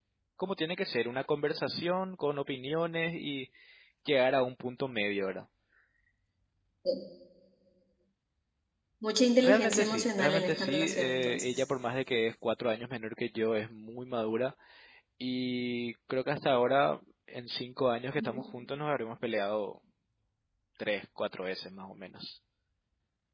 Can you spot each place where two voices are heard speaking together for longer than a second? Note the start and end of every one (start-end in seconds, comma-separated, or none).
9.4-11.6